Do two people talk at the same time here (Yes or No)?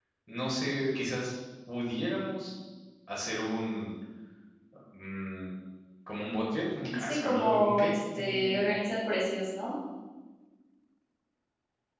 Yes